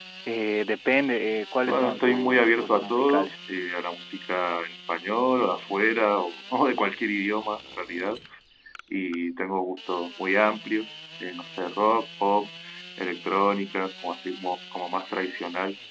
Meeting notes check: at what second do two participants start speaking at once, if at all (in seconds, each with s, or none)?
1.6 s